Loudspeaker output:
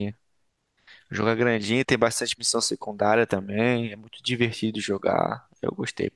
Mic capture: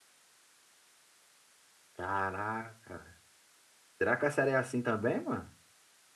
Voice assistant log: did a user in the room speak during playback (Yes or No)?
Yes